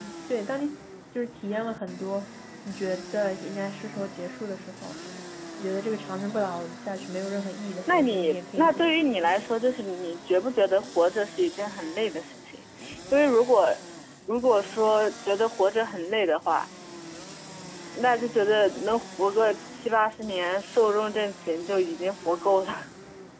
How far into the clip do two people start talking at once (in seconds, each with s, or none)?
7.9 s